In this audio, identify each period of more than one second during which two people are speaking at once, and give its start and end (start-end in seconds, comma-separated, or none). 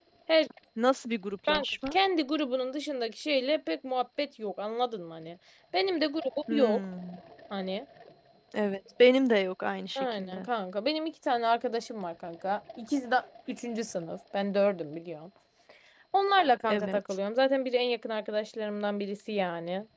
none